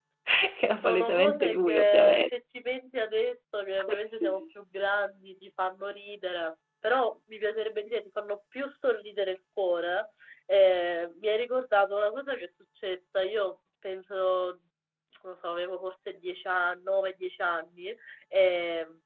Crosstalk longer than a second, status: present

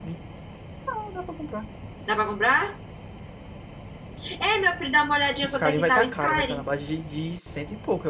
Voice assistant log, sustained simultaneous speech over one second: present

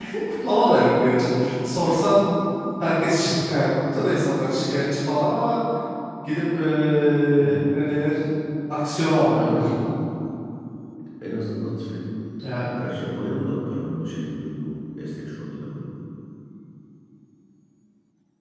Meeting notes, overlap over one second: none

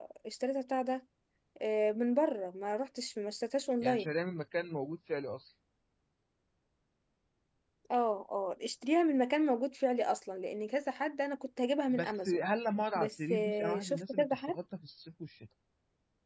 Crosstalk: present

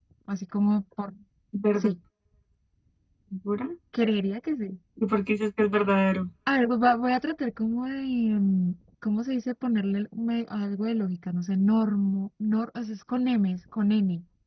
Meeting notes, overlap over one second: none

